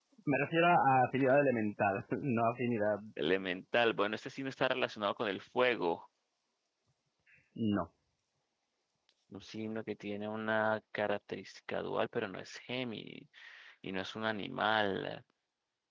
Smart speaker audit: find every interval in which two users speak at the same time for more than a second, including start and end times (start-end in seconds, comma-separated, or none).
none